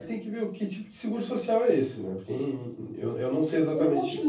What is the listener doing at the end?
taking over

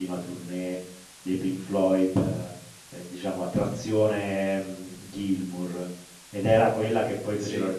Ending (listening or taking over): listening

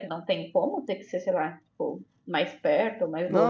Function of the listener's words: taking over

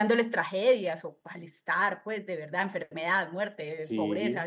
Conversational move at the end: listening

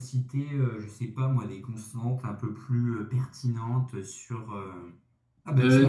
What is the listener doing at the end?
listening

